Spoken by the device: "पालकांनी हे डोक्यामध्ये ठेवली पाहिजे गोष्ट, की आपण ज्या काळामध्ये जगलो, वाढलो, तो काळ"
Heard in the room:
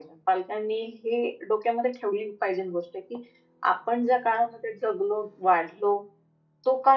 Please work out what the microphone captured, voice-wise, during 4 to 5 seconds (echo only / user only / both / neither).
echo only